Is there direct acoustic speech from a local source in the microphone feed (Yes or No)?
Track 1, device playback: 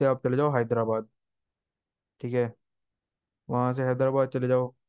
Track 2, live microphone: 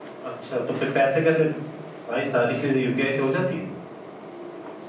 Yes